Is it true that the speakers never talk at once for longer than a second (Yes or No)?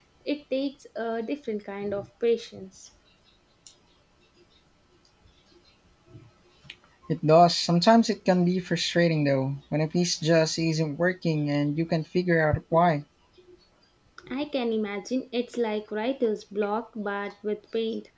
Yes